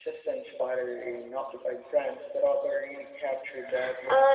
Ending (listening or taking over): taking over